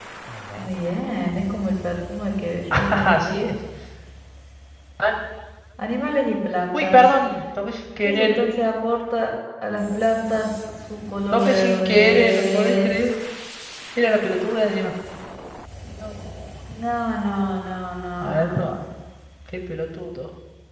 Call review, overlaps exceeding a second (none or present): present